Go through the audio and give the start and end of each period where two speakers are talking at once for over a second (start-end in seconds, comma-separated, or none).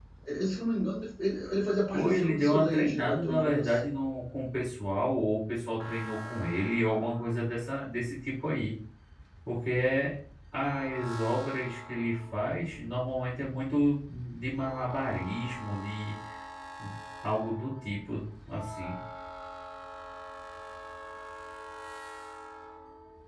1.9-3.8